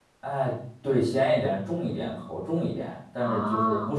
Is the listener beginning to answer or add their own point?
No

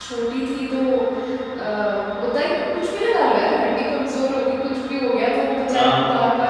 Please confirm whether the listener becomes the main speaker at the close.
No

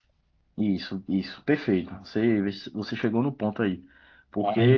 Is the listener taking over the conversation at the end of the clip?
No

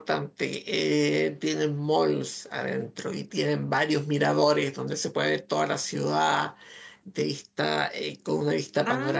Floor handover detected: Yes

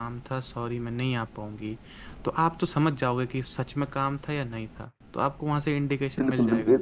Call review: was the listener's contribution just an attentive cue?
No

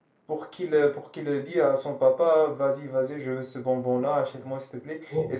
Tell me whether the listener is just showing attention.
Yes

